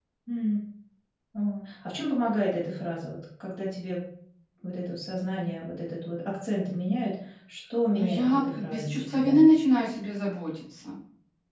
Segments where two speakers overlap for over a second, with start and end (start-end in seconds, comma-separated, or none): 7.9-9.4